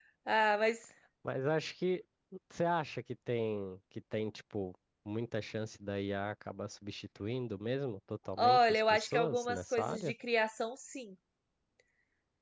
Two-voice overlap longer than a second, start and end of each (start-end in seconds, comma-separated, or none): 8.4-10.1